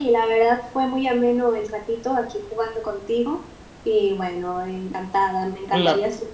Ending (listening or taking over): listening